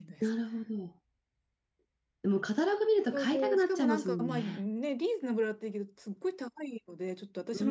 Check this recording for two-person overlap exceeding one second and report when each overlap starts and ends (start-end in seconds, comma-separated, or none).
3.1-4.6